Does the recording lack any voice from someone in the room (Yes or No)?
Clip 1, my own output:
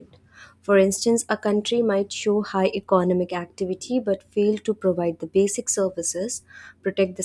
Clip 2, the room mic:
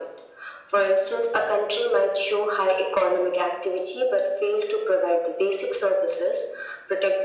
Yes